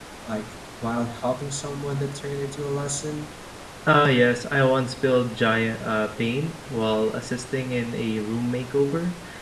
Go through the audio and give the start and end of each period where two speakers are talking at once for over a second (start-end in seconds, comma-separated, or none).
none